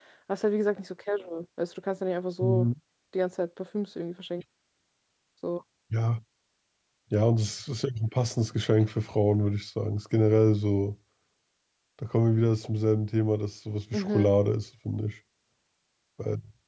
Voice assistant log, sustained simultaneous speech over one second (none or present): none